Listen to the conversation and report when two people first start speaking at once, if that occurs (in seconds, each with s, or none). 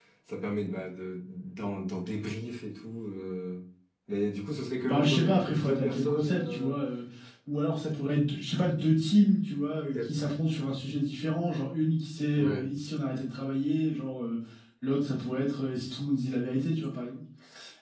4.8 s